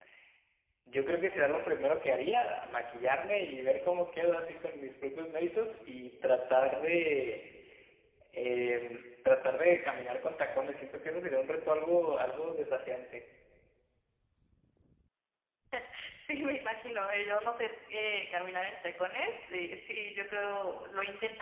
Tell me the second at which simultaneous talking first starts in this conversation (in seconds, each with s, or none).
none